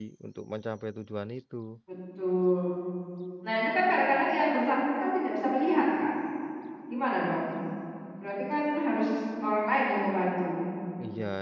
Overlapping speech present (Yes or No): No